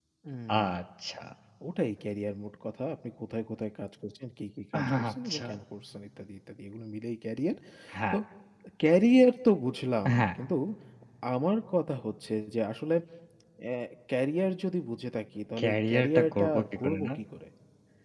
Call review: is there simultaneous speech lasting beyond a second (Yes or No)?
Yes